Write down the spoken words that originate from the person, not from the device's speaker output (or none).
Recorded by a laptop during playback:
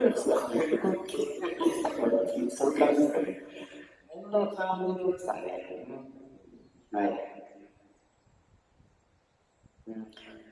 none